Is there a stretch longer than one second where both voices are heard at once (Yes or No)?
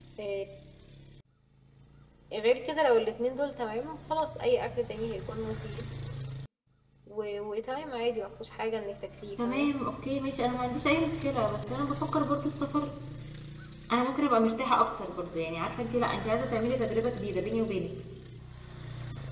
No